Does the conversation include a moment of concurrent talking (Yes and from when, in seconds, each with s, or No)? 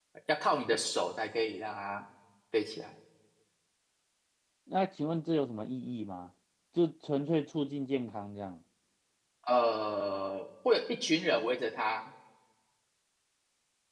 No